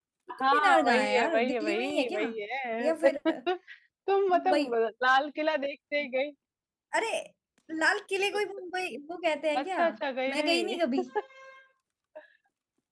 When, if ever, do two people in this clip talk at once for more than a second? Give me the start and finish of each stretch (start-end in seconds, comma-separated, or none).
0.5-2.3